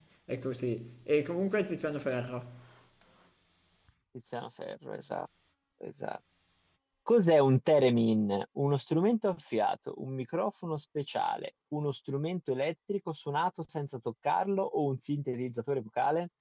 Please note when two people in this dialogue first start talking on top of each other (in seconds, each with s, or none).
none